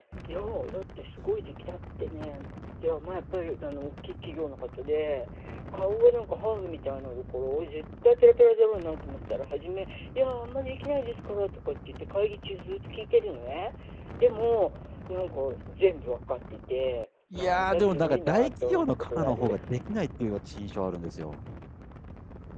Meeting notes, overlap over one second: present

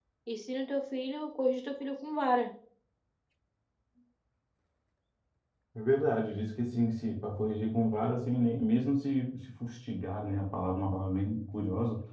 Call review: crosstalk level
none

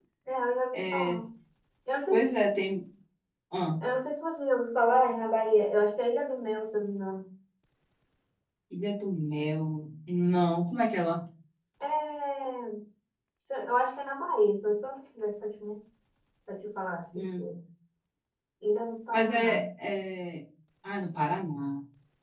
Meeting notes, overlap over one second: none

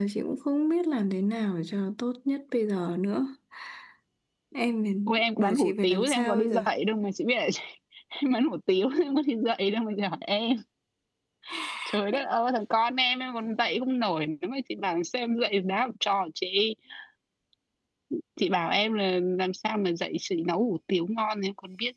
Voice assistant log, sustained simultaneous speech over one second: present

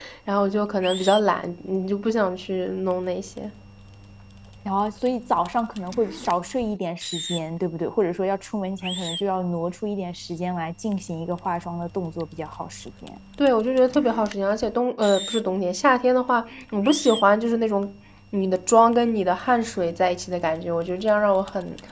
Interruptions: none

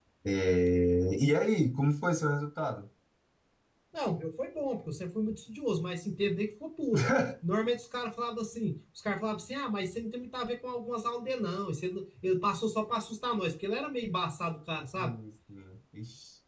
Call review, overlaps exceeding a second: none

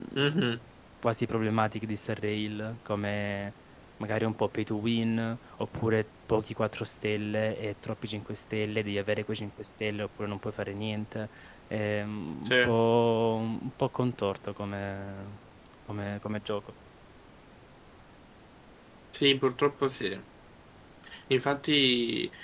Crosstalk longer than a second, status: none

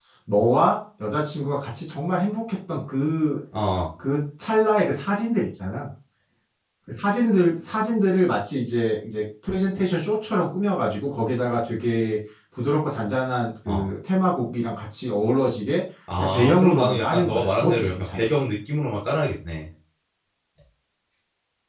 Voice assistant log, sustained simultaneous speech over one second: present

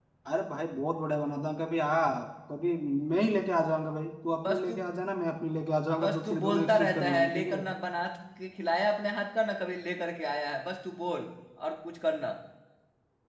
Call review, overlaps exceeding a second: present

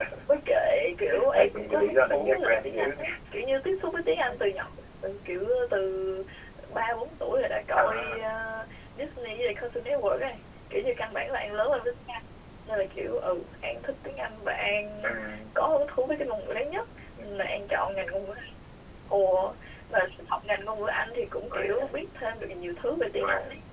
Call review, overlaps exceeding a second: present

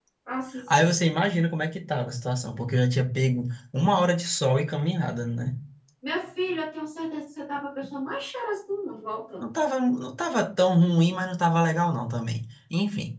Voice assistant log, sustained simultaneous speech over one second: none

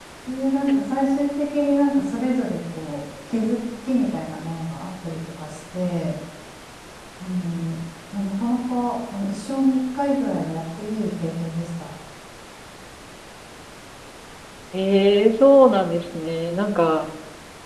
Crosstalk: none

